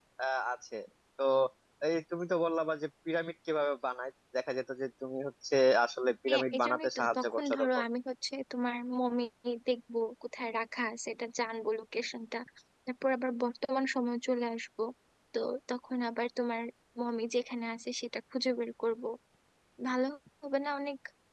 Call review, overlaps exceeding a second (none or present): present